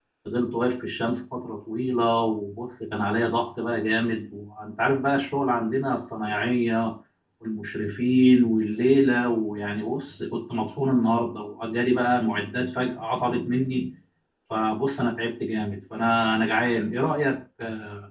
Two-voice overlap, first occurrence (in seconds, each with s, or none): none